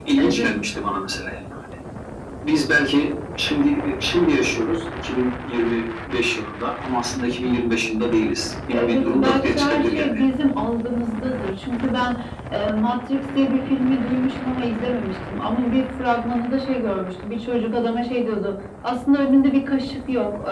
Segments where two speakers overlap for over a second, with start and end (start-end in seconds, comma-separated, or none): 8.7-10.2